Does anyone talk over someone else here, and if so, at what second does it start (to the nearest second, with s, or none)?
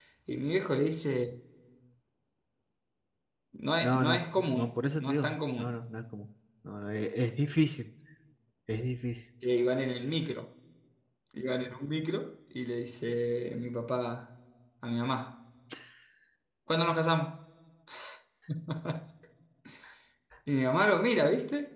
4 s